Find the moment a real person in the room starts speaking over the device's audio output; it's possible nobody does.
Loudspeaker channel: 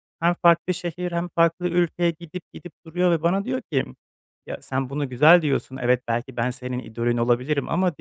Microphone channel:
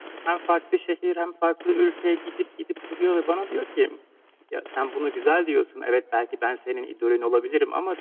none

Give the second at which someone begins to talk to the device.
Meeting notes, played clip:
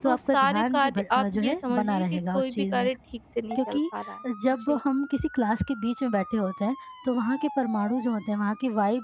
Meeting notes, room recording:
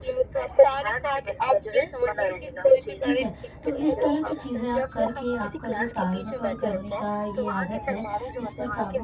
3.0 s

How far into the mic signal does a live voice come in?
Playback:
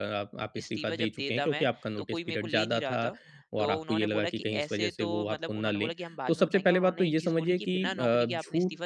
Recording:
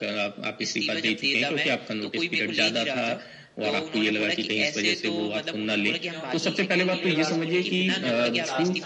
6.1 s

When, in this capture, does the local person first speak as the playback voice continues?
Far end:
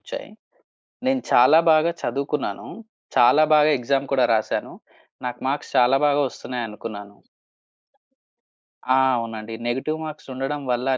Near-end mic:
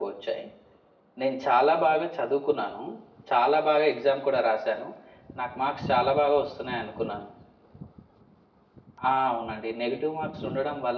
none

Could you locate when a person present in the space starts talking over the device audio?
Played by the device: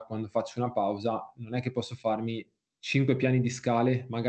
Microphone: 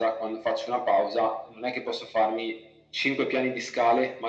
none

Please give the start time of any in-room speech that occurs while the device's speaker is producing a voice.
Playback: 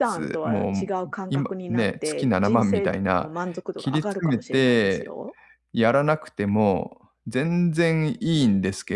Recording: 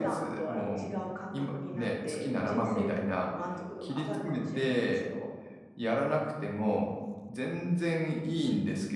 none

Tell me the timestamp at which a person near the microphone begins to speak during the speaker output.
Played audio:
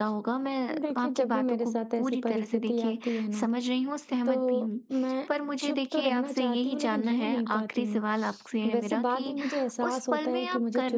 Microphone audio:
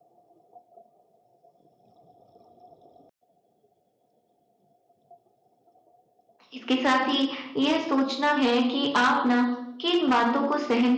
6.5 s

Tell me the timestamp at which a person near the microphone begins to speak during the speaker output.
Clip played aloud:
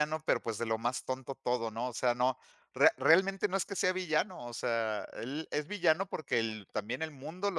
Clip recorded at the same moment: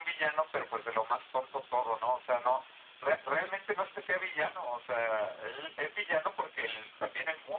none

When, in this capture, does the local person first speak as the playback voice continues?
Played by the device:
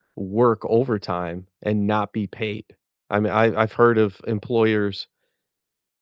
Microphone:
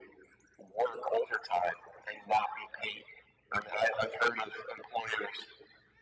none

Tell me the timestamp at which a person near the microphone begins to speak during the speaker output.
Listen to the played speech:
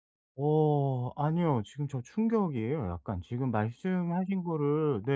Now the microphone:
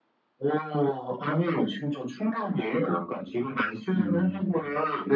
4.0 s

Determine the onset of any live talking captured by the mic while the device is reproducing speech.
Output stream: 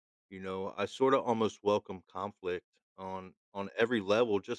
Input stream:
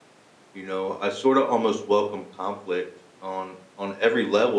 none

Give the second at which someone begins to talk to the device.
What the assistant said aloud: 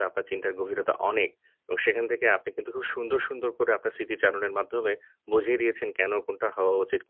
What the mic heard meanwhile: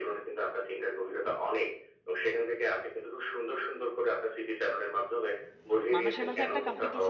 5.9 s

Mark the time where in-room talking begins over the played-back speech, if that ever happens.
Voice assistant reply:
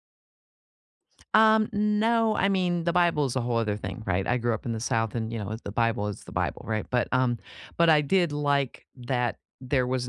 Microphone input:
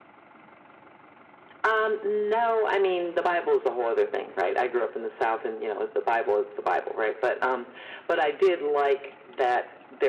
none

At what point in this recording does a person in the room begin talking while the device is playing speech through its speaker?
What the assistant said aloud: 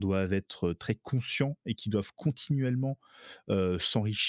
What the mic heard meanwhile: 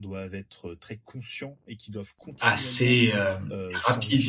2.4 s

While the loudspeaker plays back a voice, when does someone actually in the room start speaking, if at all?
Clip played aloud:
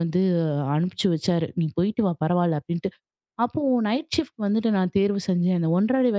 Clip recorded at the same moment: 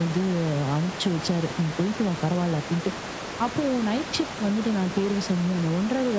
none

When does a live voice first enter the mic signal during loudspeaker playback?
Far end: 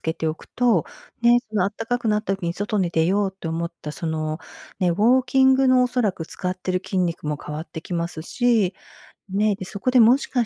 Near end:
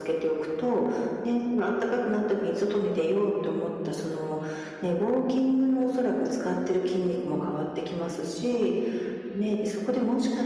none

